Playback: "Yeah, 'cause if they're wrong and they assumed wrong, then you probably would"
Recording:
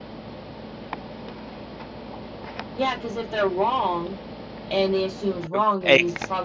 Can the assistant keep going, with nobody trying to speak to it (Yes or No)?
No